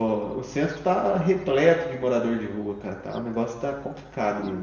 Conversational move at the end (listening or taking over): taking over